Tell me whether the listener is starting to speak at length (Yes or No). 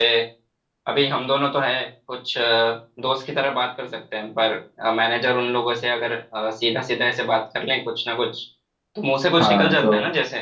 Yes